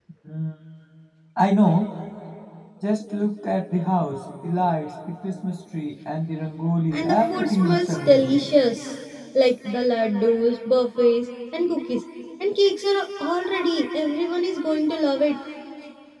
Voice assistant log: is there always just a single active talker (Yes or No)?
No